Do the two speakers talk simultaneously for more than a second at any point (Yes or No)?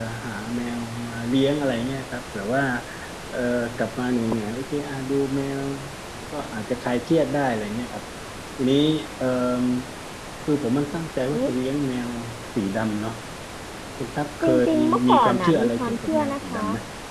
Yes